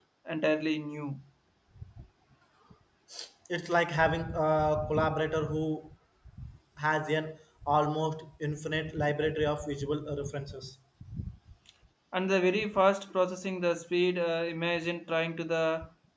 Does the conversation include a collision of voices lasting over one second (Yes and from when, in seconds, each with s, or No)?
No